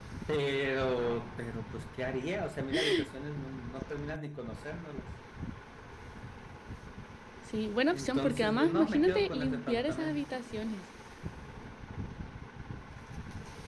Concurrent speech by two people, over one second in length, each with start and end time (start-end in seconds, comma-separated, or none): 7.9-10.2